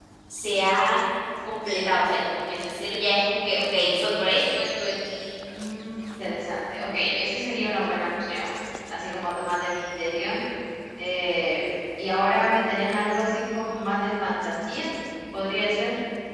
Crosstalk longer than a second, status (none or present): none